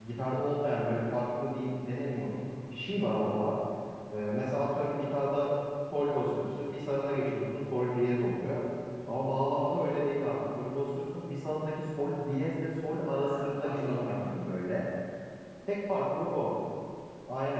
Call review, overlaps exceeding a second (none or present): present